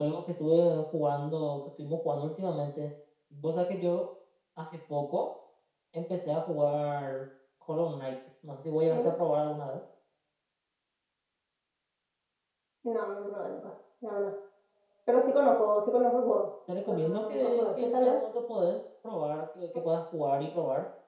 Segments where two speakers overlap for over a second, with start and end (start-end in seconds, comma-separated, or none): 16.9-18.2